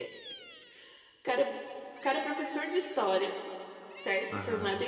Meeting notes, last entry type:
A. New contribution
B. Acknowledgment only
B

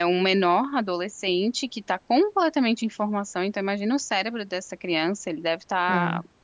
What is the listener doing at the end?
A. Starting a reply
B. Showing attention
B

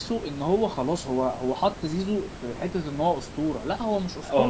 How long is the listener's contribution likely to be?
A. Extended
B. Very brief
A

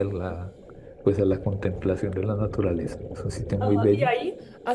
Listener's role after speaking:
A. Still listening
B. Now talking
B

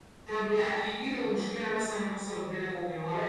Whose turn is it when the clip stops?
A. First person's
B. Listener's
B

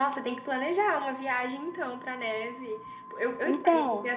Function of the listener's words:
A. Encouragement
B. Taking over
A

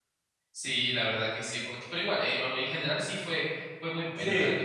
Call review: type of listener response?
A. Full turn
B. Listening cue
A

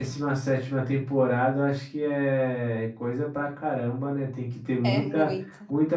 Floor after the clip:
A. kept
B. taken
A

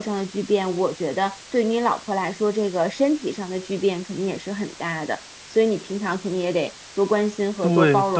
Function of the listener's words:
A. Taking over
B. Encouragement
A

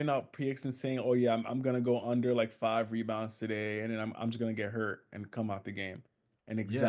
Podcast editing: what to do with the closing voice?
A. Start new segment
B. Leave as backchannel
A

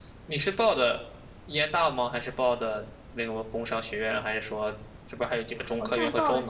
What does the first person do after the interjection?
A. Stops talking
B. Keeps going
A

